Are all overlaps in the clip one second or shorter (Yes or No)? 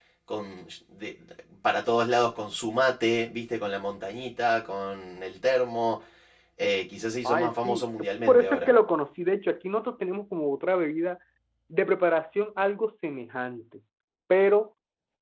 No